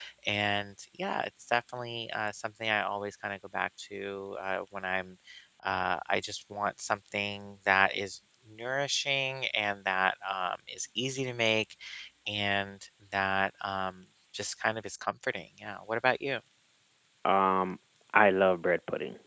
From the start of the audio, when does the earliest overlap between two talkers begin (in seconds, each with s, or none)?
none